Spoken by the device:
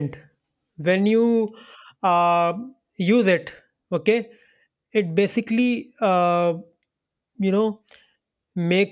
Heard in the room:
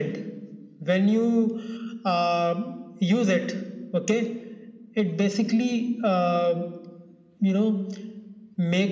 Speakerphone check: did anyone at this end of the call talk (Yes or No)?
No